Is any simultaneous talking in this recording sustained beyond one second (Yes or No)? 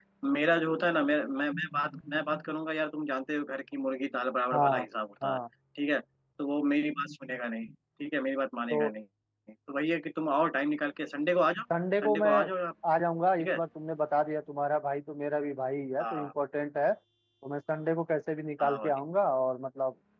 No